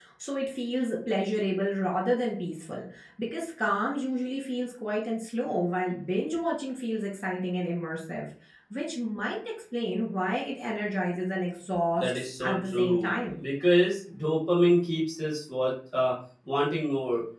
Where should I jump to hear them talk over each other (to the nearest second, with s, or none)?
12 s